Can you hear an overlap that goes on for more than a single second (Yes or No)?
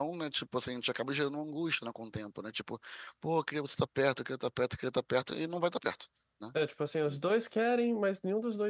No